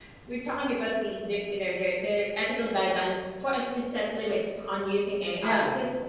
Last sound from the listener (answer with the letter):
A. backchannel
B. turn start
A